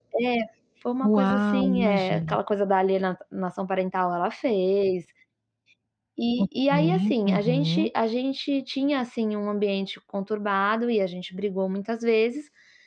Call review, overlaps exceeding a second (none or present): present